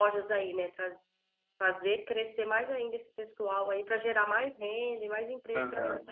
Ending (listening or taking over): taking over